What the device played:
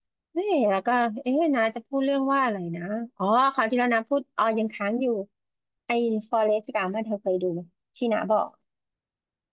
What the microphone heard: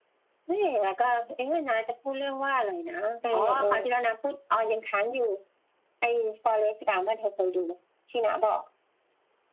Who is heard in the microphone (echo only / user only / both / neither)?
both